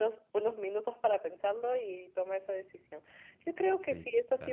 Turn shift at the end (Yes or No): No